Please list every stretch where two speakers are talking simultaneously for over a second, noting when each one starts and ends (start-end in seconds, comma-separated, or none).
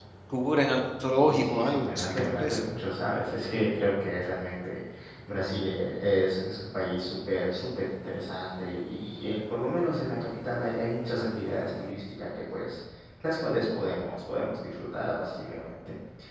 1.1-2.6